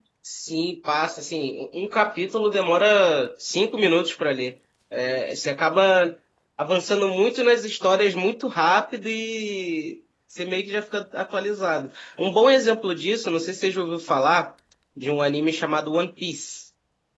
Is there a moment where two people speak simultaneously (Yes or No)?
No